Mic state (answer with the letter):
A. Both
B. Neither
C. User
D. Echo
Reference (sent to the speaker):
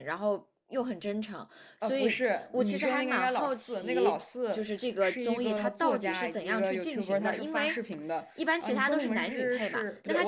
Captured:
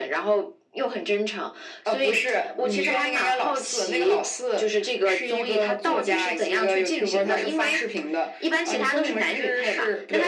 D